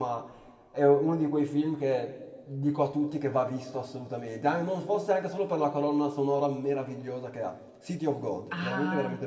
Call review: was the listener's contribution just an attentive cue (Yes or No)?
No